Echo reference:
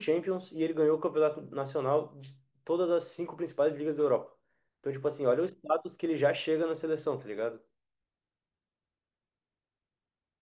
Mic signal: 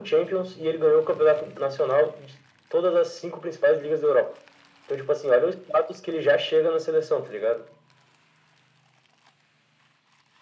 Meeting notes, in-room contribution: none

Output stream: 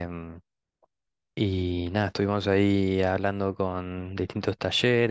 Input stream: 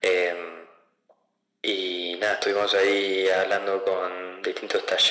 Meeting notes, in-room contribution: none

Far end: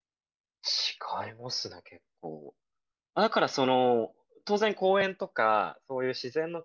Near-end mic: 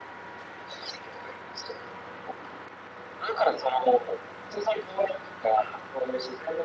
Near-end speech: none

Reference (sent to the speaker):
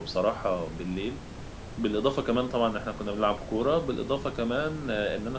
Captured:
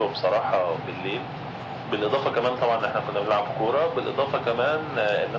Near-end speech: none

